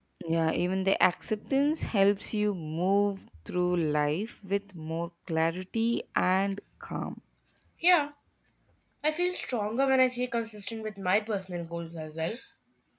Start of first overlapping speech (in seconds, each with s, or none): none